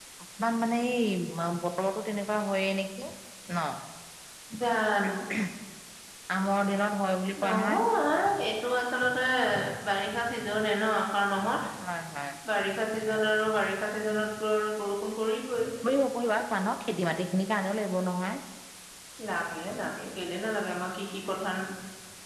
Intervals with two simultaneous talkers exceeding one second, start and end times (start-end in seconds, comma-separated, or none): none